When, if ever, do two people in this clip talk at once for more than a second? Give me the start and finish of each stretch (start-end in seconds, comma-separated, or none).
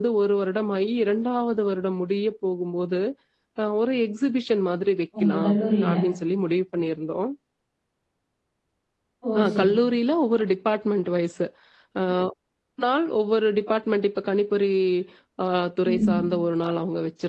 none